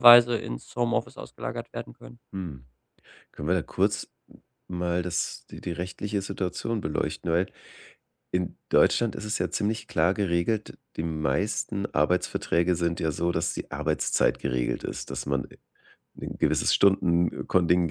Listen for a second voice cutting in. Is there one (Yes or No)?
No